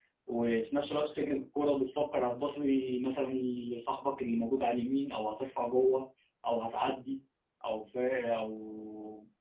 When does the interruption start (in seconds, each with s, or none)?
none